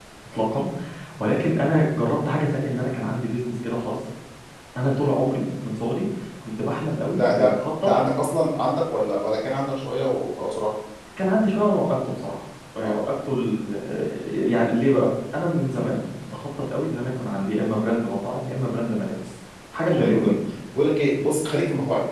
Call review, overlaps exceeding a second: none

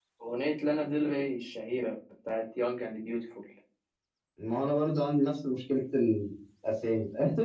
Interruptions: none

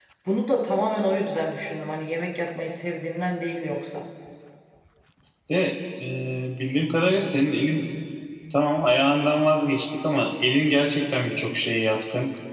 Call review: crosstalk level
none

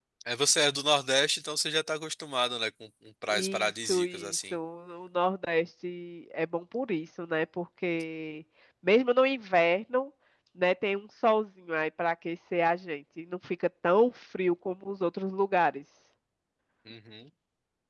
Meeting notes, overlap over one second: present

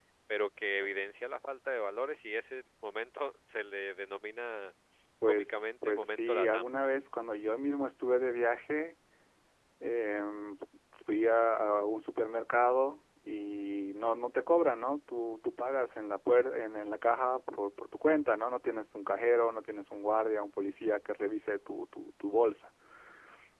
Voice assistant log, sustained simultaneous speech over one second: present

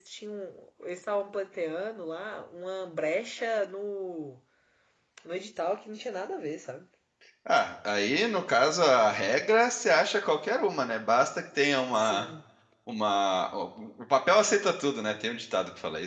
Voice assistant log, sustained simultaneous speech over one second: none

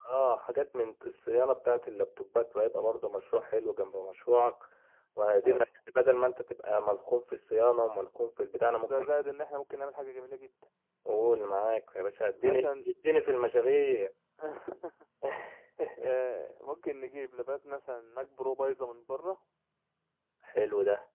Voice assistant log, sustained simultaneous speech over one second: none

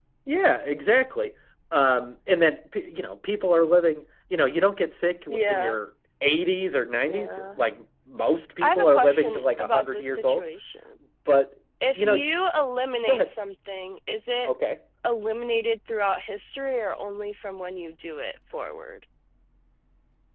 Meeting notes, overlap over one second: present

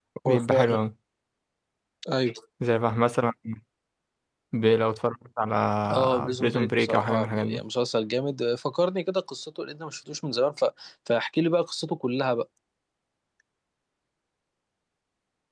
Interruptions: present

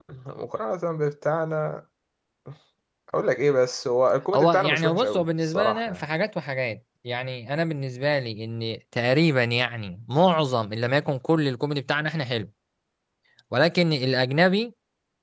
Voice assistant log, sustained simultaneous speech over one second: present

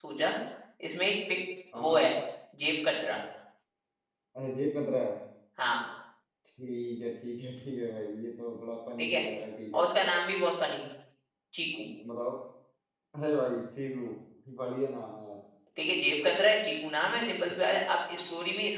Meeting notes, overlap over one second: none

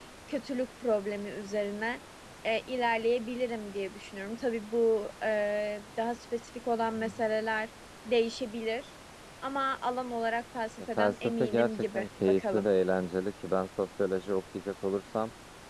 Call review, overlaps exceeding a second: present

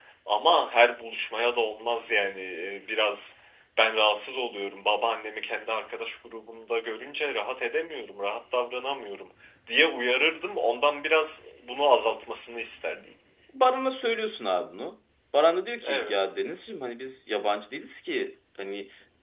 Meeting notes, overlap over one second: none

